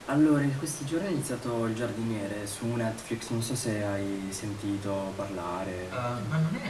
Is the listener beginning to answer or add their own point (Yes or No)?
Yes